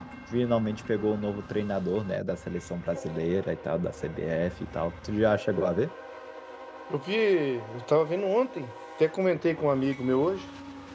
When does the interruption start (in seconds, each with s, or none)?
none